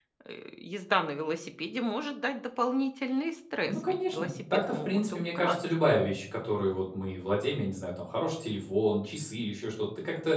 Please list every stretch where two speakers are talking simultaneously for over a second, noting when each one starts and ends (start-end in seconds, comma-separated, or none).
3.7-5.6